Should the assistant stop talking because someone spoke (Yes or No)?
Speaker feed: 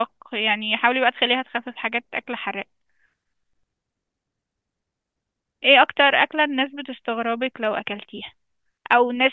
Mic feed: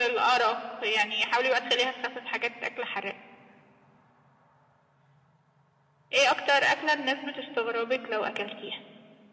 No